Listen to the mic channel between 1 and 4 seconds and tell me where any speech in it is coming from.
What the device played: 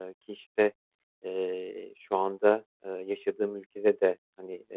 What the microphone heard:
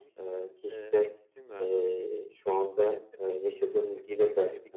both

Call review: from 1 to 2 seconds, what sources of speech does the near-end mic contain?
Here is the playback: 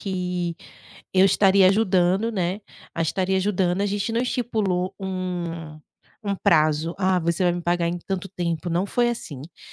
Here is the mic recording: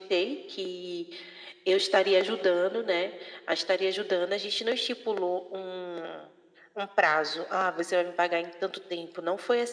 echo only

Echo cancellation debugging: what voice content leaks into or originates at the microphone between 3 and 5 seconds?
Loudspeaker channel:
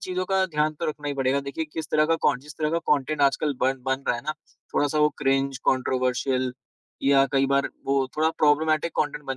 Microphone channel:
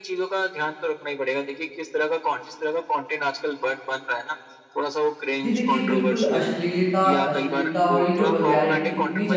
echo only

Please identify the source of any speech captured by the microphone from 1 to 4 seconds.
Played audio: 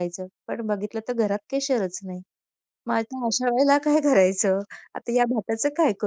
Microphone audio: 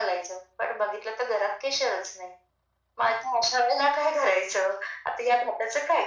echo only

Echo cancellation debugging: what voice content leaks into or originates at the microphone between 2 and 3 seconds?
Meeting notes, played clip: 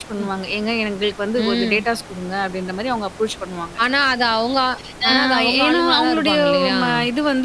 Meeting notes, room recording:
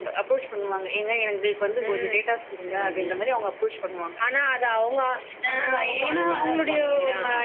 both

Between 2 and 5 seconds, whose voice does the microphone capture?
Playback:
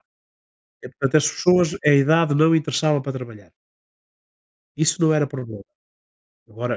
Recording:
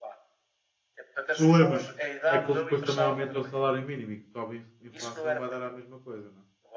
both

